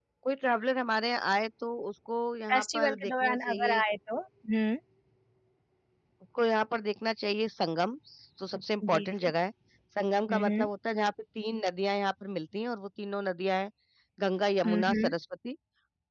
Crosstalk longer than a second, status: present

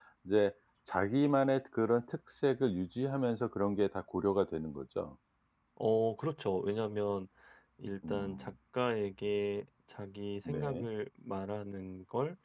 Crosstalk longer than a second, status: none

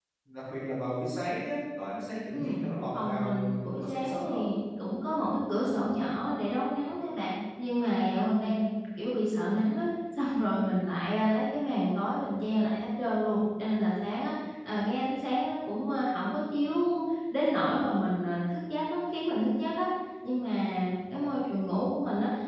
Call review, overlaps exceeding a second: present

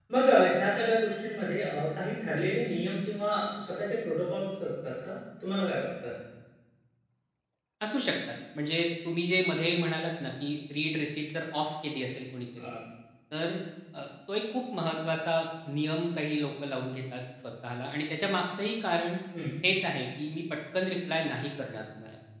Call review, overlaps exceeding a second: none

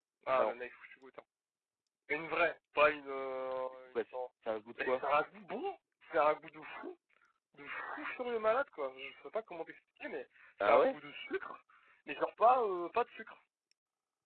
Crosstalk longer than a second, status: none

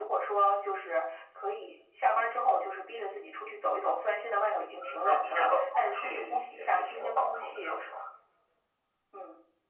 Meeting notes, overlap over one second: present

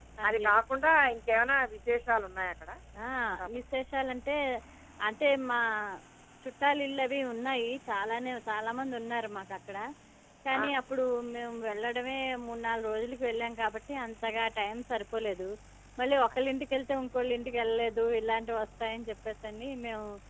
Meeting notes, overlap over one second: none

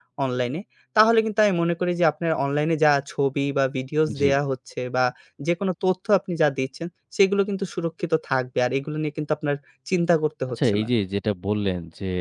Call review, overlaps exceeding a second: none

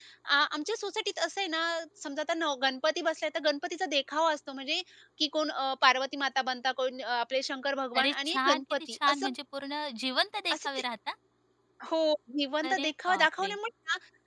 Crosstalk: present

